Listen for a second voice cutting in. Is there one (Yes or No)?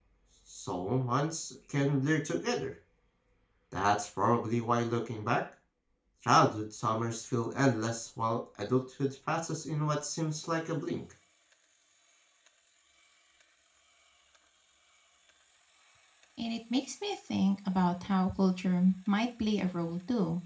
No